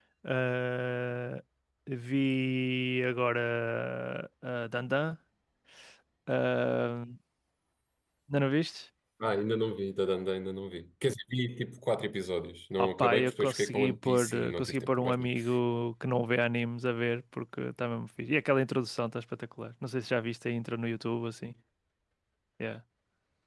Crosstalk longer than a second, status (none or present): present